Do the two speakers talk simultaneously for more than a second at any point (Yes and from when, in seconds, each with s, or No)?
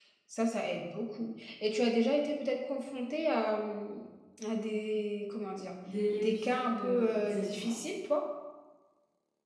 Yes, from 6.1 s